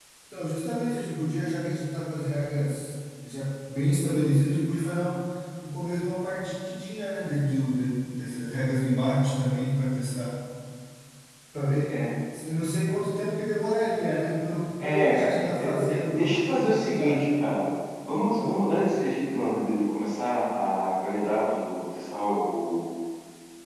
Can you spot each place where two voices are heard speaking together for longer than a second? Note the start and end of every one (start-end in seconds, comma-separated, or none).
14.8-17.2